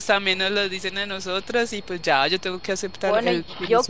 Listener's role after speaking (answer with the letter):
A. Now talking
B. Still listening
A